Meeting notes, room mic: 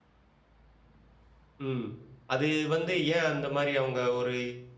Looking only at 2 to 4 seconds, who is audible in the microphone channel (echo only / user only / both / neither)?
user only